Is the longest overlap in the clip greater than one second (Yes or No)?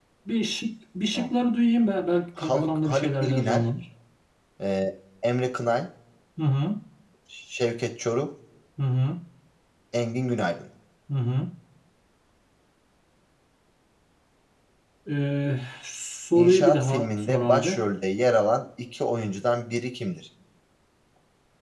Yes